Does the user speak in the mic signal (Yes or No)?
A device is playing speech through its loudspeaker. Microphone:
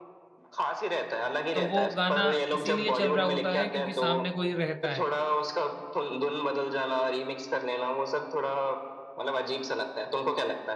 Yes